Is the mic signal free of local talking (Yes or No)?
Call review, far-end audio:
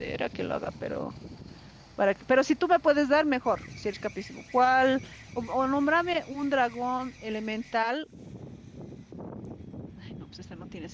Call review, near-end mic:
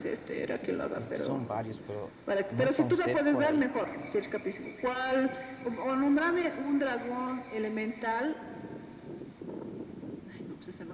No